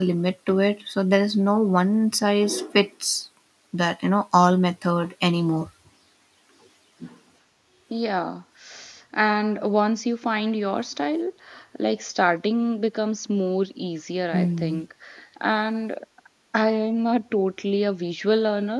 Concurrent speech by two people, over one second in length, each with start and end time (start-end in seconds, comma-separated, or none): none